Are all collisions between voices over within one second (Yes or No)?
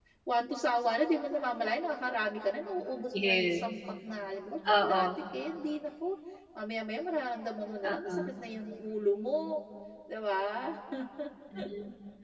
Yes